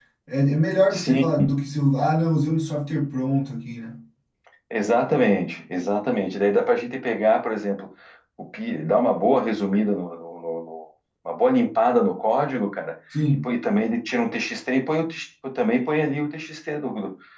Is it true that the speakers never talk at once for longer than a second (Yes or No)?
Yes